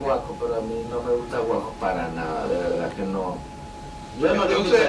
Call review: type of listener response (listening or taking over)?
listening